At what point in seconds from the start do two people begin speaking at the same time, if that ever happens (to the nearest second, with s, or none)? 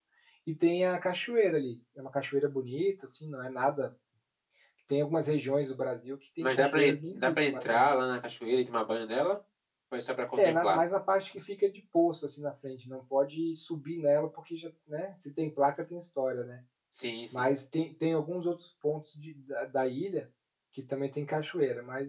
6 s